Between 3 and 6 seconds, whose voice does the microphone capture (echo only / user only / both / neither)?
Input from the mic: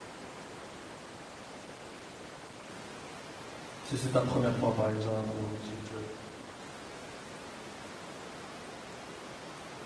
user only